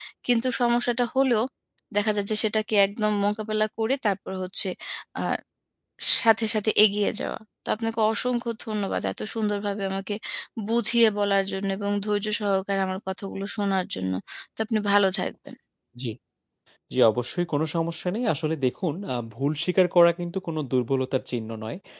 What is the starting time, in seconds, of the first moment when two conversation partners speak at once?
none

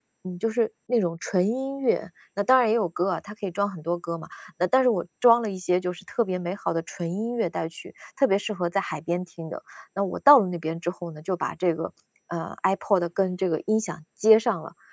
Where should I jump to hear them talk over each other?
none

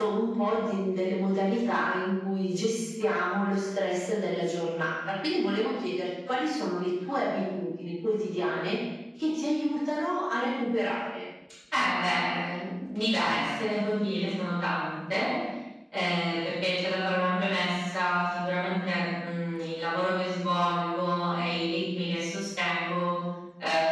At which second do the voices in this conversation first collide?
none

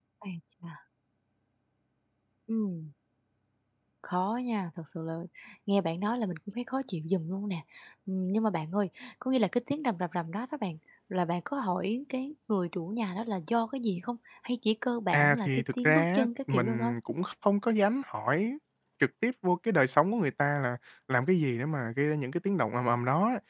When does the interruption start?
15.1 s

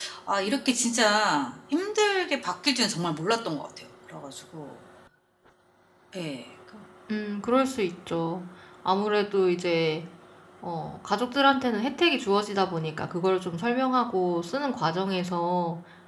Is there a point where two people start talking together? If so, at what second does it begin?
none

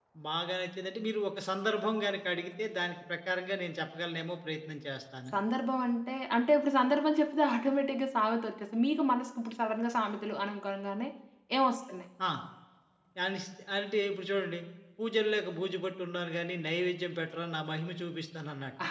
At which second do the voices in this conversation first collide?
none

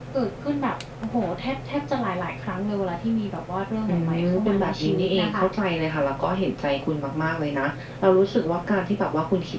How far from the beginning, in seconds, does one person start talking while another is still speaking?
3.9 s

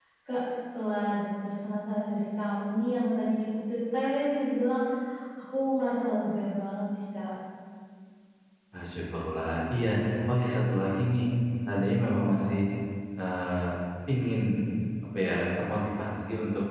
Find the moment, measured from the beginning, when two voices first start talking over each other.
none

